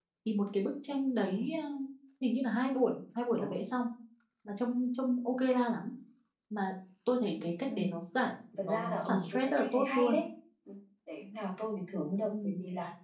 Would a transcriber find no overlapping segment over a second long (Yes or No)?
No